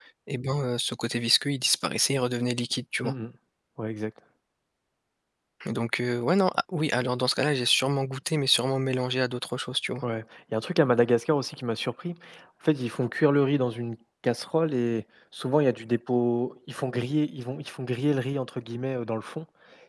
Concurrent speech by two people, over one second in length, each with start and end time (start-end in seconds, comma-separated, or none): none